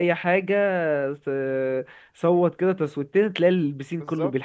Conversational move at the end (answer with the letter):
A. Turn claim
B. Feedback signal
A